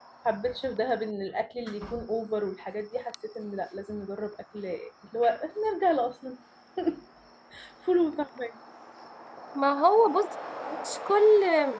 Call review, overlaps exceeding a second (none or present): none